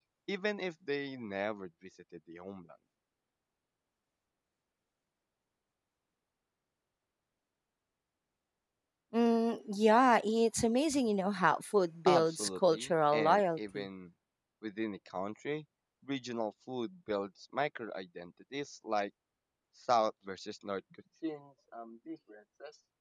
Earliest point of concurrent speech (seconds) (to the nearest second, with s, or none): 12 s